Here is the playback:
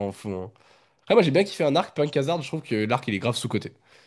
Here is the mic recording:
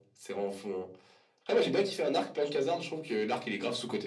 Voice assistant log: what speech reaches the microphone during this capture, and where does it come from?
echo only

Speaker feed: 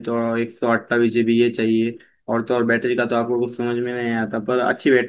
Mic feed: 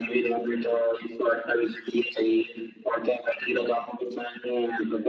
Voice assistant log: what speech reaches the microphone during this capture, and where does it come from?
echo only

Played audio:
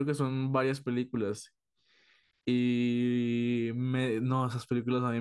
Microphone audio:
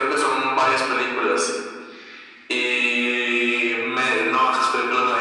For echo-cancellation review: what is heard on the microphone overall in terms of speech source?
echo only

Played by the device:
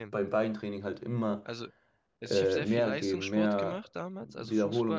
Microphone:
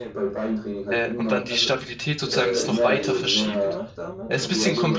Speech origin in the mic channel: both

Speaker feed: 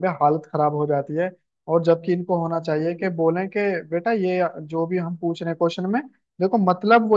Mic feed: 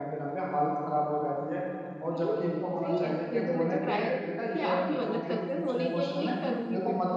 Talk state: both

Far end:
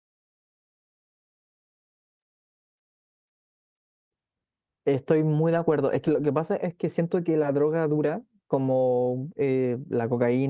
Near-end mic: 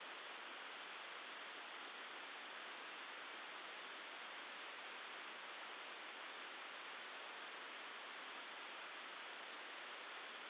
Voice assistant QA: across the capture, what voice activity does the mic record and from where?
neither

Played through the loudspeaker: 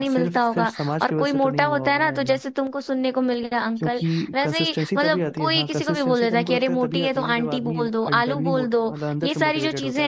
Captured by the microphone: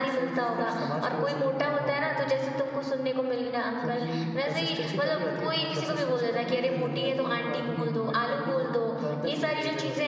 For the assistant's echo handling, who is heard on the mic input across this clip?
both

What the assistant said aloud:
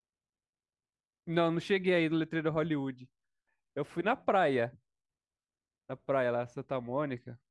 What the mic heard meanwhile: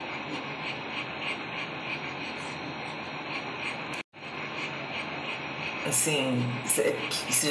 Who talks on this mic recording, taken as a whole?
user only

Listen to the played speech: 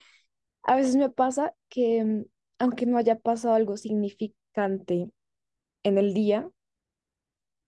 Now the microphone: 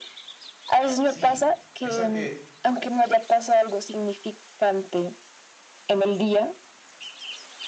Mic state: both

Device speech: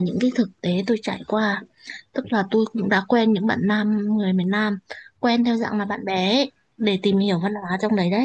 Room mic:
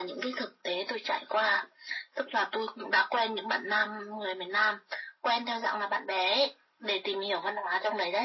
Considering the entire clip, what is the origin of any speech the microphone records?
echo only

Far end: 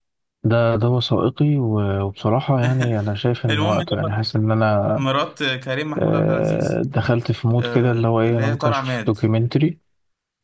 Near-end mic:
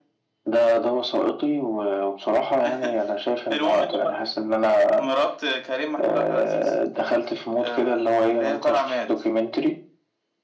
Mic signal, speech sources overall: echo only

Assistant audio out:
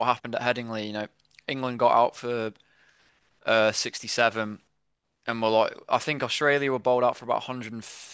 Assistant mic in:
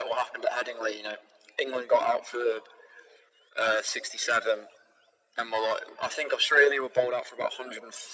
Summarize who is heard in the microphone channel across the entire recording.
echo only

